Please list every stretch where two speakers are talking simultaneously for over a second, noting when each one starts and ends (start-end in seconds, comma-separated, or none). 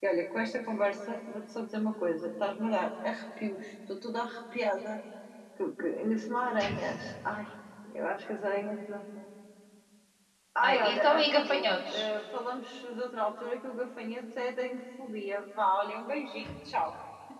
10.6-12.1